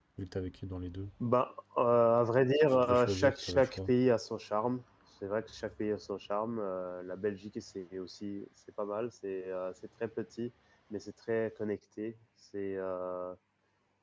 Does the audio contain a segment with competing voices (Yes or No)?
Yes